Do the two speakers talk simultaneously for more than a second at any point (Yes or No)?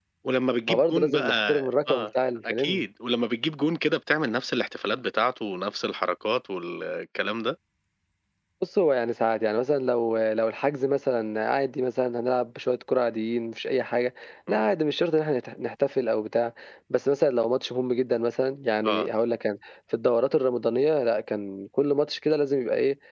Yes